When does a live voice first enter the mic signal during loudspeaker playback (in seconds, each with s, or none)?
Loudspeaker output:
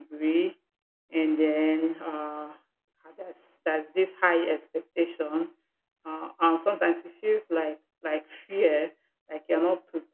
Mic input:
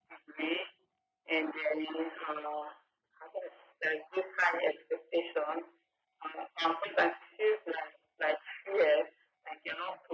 none